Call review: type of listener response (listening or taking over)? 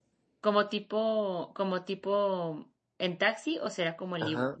taking over